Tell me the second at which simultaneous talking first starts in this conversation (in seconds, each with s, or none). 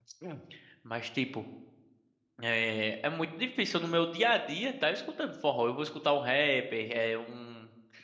none